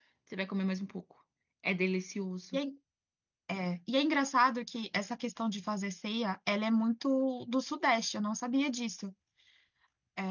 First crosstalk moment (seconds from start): none

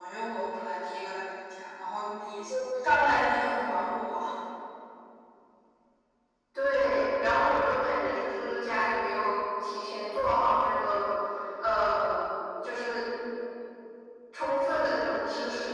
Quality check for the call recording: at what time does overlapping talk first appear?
none

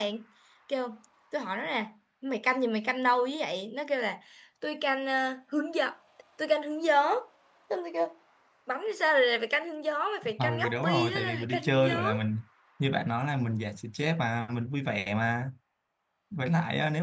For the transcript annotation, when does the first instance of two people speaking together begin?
10.2 s

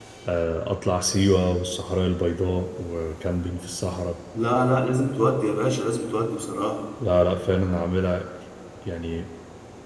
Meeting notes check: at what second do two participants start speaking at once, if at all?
none

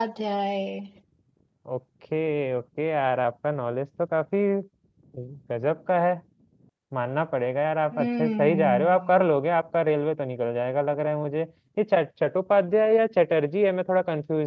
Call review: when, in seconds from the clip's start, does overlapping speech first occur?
7.9 s

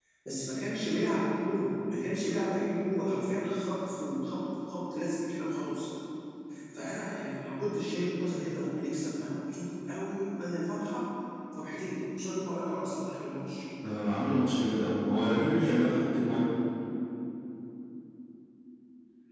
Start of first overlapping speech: none

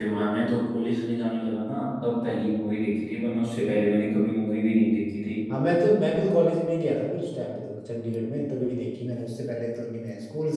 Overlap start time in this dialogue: none

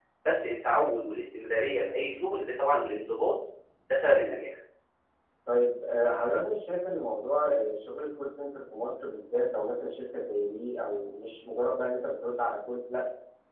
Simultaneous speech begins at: none

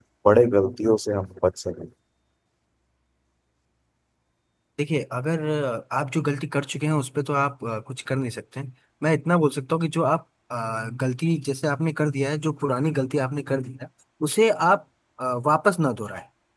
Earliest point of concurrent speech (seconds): none

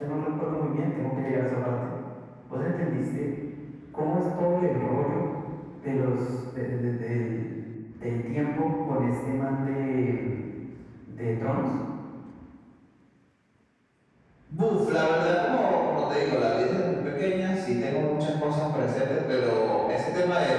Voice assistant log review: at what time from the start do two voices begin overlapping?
none

